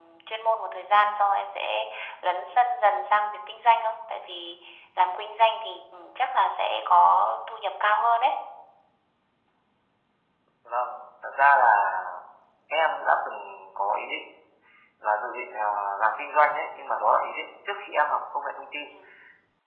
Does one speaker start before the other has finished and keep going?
No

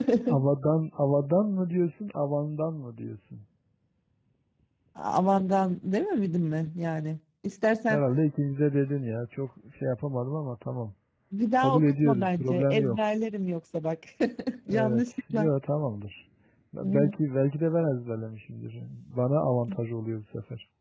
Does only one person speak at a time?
No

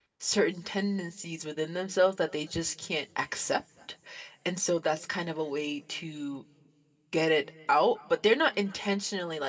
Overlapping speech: No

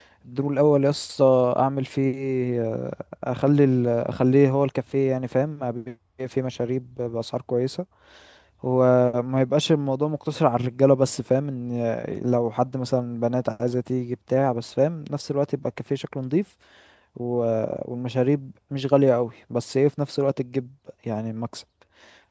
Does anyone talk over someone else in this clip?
No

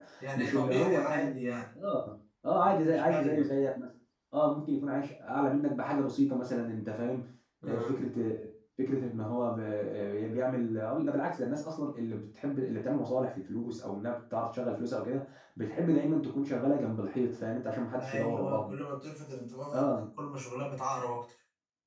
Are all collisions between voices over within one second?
No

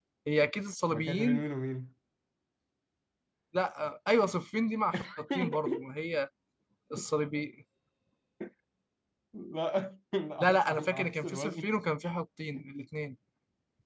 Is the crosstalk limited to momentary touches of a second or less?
No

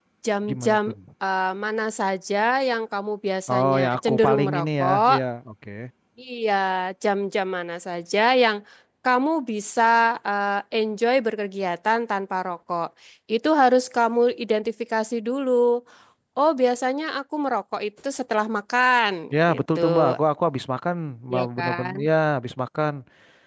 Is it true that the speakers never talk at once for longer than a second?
No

